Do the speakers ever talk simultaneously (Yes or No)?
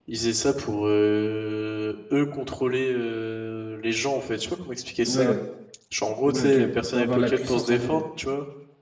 Yes